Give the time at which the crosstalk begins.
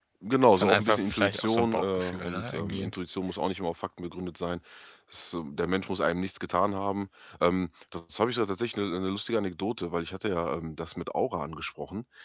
1 s

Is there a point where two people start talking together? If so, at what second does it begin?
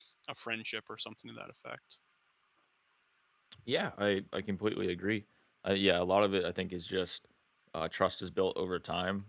none

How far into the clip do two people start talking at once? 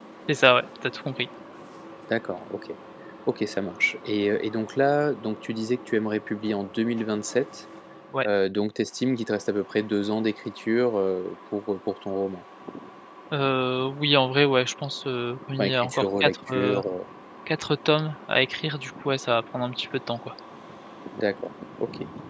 16 s

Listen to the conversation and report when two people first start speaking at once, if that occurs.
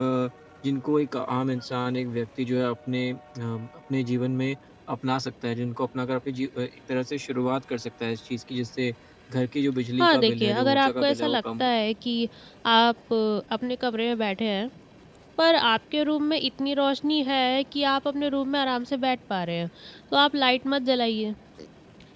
10 s

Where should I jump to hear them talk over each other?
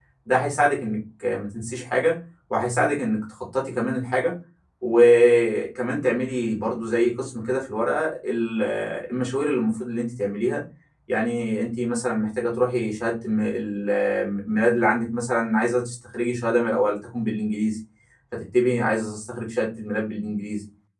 none

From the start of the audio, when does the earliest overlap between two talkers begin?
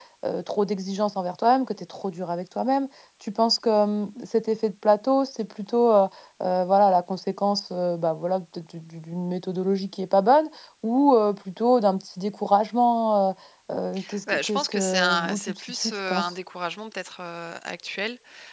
14 s

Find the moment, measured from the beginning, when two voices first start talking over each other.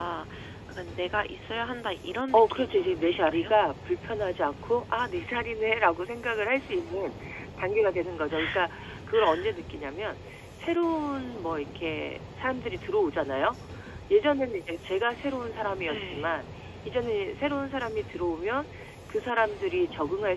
2 s

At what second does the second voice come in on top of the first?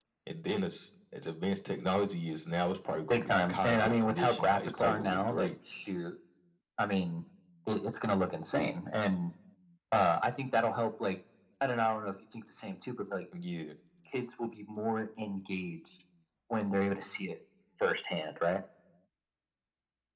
3 s

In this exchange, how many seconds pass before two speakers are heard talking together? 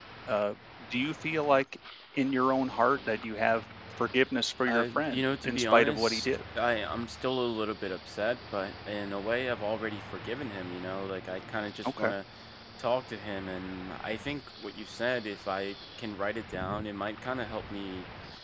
5 s

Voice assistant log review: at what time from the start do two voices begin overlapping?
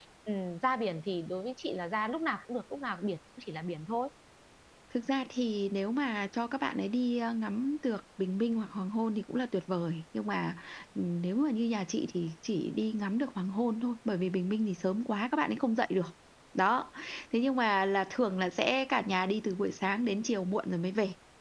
none

